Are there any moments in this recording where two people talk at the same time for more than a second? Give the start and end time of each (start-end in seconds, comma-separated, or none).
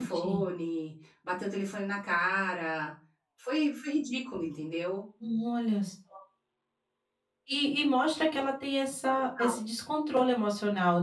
none